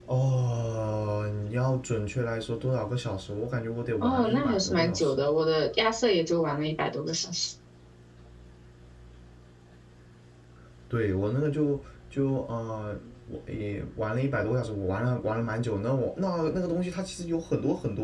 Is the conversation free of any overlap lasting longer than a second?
No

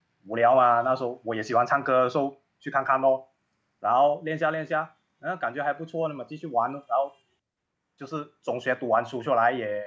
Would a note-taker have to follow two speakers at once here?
No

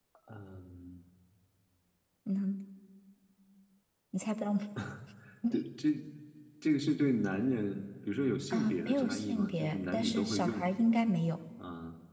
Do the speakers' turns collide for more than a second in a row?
Yes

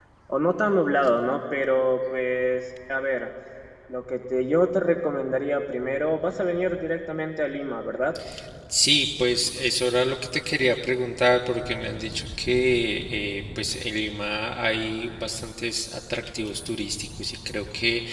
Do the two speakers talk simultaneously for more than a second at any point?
No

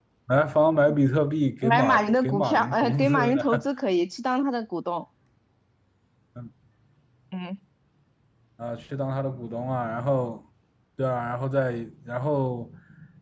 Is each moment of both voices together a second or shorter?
No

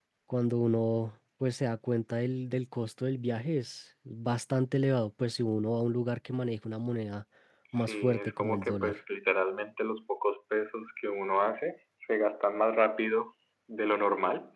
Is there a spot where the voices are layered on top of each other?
Yes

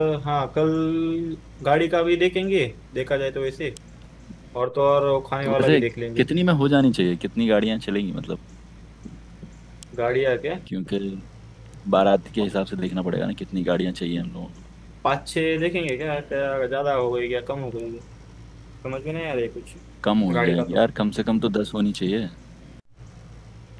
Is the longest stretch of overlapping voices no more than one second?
Yes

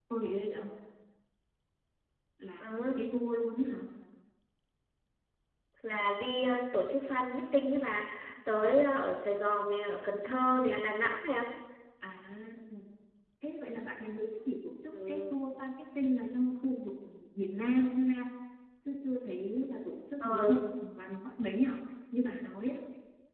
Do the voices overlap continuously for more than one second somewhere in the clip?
No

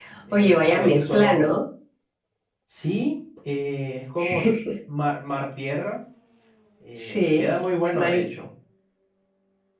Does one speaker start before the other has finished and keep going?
Yes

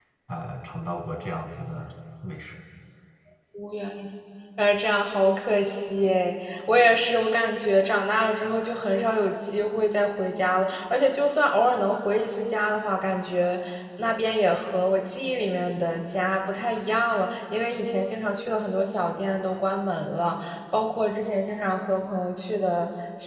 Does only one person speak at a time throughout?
Yes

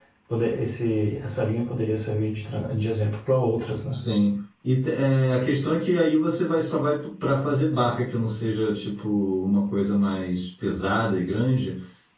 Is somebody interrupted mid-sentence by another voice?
No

